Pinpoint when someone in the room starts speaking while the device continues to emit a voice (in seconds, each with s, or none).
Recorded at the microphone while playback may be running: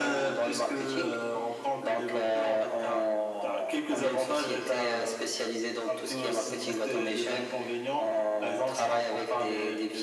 none